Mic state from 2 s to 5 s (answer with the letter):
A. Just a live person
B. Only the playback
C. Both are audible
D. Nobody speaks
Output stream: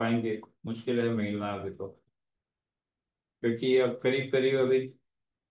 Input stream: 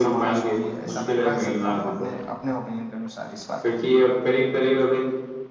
C